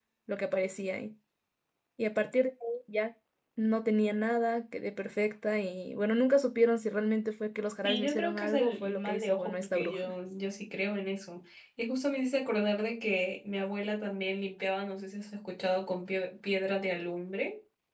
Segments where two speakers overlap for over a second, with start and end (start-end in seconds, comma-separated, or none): 7.8-10.1